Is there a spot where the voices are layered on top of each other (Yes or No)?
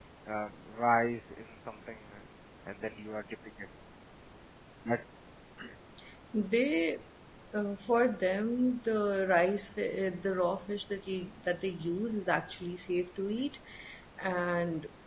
No